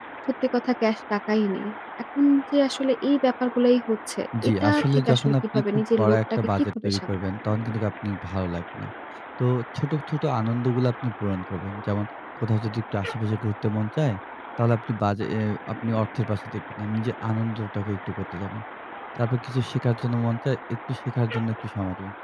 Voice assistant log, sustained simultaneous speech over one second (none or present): present